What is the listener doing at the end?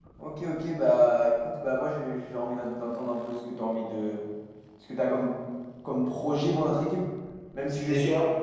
listening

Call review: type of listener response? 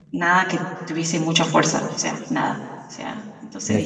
taking over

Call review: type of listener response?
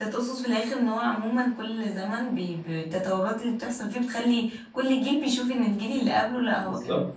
taking over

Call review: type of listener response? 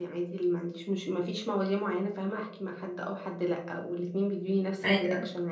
listening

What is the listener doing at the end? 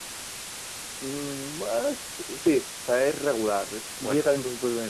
listening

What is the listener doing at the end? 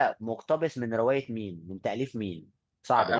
taking over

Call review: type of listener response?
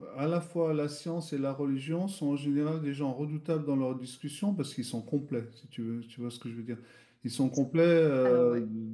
listening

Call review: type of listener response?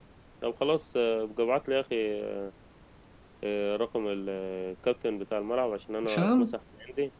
listening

